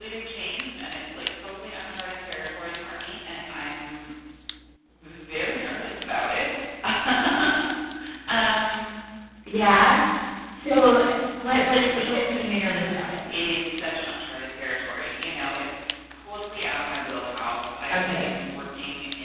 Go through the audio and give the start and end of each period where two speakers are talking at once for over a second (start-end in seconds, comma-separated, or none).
11.8-13.2